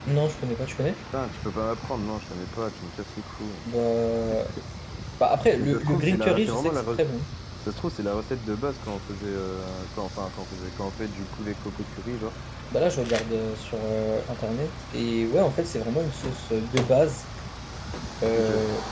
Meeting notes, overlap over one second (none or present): present